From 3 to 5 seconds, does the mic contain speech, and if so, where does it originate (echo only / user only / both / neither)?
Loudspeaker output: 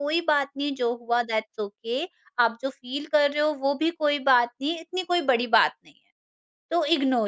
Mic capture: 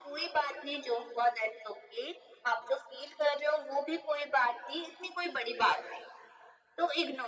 echo only